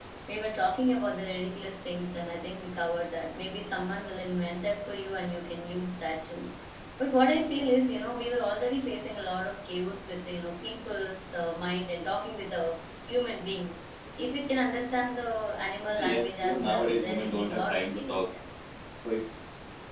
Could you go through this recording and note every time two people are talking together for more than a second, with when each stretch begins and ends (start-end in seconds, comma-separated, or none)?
16.0-18.2